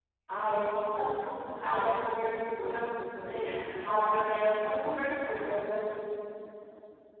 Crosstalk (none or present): present